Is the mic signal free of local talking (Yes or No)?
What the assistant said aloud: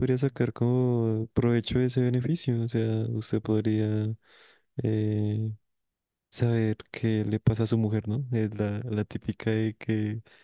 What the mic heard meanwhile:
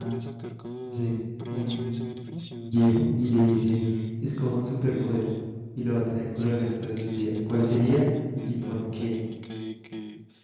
No